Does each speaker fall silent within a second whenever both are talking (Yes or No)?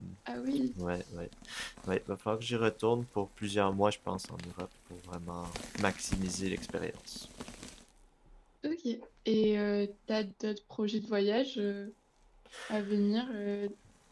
Yes